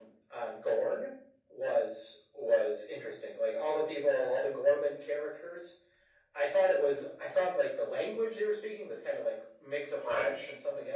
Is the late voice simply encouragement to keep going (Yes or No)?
Yes